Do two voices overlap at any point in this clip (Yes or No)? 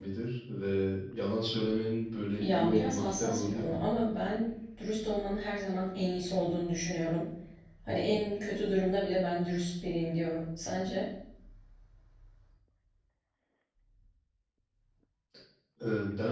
Yes